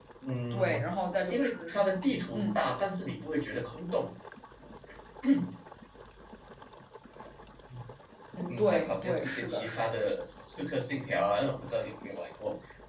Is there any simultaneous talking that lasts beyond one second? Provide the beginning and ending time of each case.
8.5-9.8

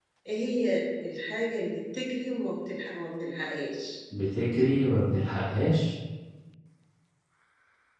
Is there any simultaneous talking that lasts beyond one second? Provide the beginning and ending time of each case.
none

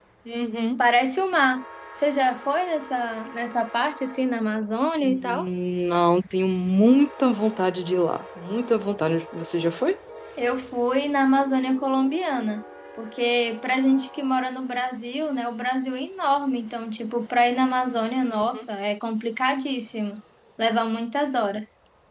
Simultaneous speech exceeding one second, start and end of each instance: none

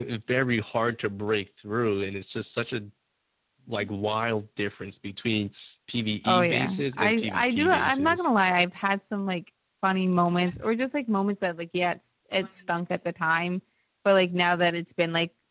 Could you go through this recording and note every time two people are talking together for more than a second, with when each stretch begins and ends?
6.2-8.3

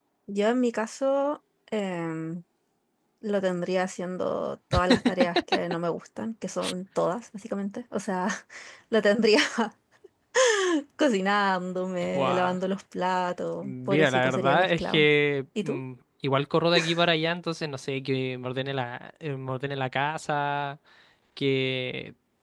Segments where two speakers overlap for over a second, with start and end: 13.6-15.1

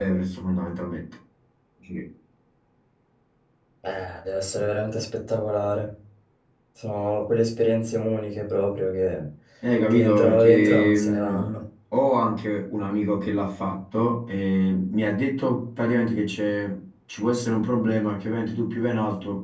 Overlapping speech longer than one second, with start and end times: 9.9-11.4

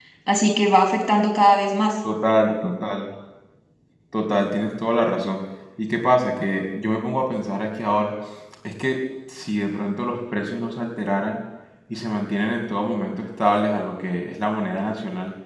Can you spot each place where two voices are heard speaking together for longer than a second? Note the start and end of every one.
none

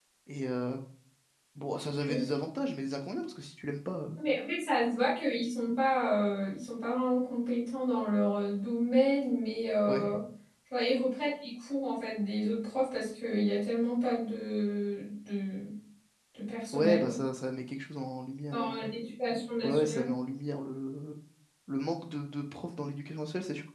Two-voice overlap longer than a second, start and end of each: none

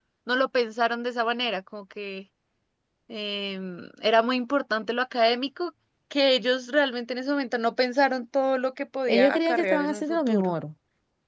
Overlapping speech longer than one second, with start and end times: 9.1-10.6

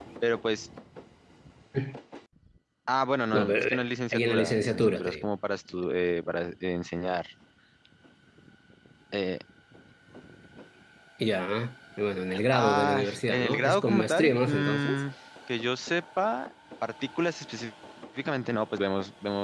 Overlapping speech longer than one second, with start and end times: 3.3-5.2, 12.5-15.0

